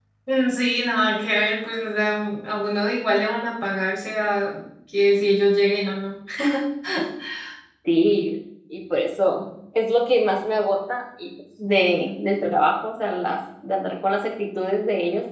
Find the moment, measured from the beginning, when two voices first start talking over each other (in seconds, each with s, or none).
none